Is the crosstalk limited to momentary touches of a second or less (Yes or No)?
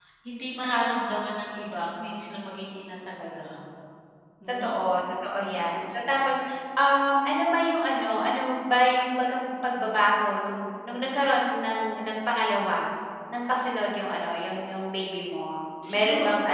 Yes